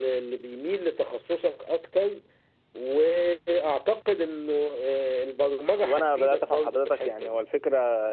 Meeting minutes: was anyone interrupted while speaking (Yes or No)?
Yes